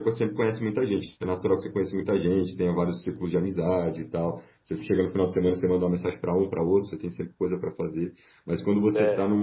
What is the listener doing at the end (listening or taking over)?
listening